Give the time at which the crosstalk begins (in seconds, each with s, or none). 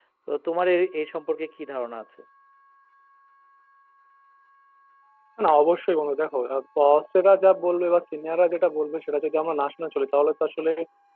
none